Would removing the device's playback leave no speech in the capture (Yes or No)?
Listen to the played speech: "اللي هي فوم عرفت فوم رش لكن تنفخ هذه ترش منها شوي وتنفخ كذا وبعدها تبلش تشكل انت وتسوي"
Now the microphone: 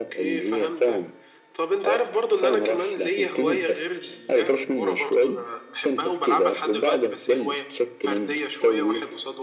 No